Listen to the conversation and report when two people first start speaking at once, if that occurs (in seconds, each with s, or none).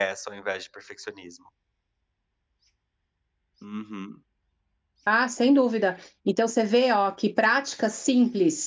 none